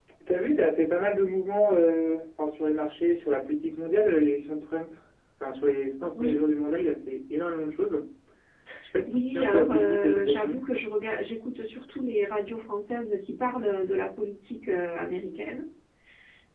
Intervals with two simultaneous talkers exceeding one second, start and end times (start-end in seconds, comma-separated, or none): 9.1-10.6